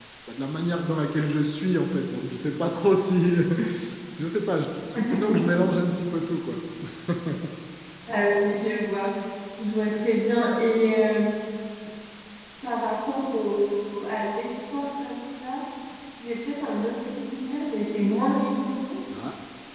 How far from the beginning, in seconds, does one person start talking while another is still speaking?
none

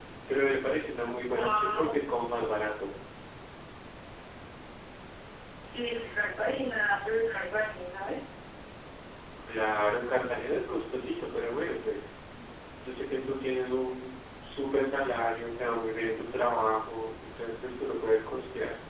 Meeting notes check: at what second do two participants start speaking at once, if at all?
1.3 s

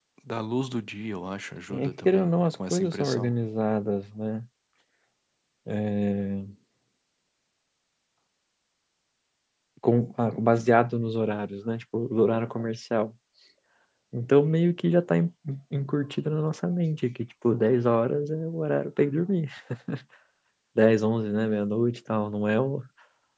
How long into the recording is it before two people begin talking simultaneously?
1.7 s

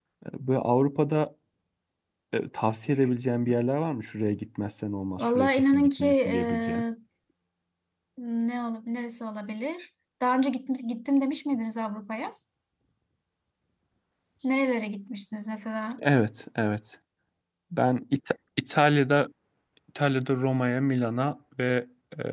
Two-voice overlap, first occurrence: 5.2 s

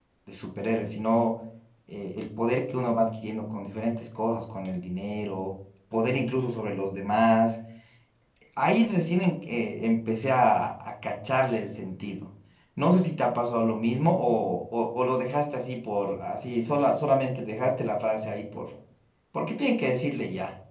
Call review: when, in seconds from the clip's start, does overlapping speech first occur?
none

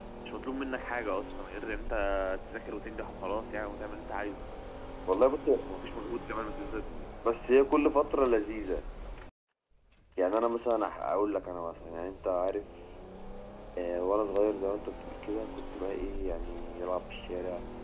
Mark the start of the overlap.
none

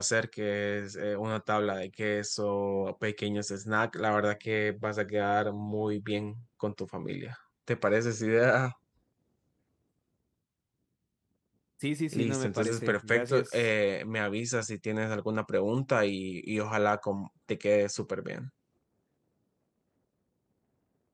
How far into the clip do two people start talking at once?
12.1 s

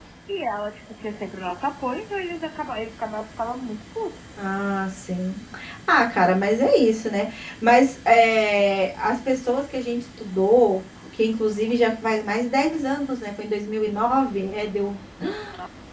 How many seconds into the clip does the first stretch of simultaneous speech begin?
none

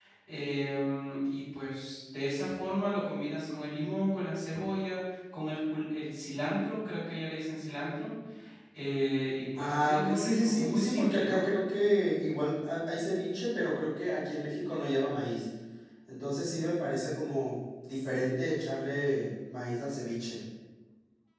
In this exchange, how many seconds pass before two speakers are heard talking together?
9.6 s

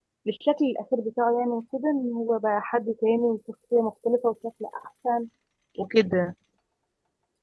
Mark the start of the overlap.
none

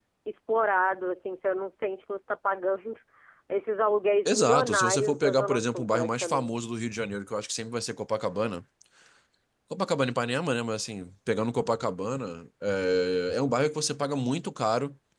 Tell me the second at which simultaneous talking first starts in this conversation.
4.2 s

